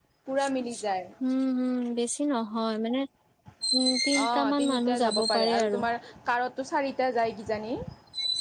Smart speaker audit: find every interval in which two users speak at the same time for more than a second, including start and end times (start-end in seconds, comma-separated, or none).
4.2-5.8